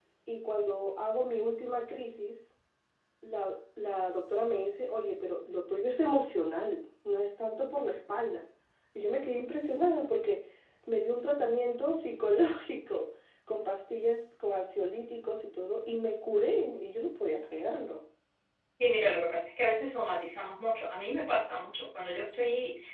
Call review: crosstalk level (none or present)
none